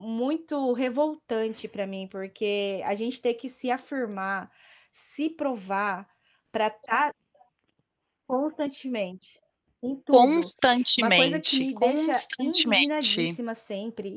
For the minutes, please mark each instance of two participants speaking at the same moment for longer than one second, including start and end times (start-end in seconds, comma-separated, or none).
11.0-13.3